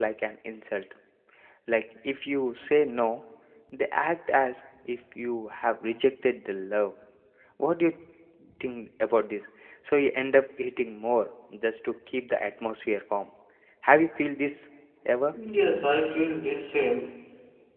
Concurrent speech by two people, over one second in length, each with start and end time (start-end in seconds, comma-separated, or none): none